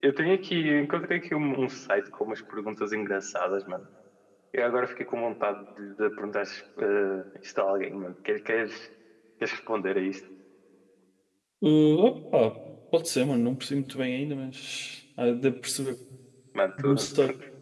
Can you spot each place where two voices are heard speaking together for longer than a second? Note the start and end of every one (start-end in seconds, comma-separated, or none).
none